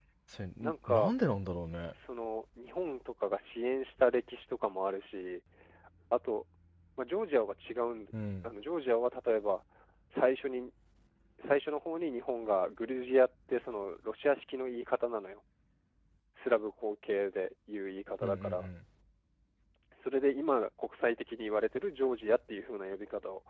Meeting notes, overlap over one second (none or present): none